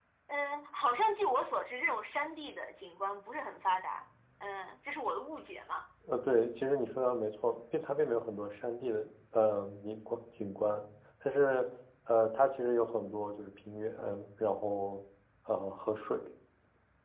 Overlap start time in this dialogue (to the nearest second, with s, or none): none